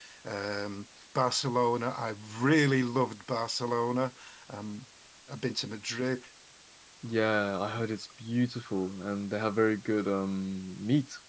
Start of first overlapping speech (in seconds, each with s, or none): none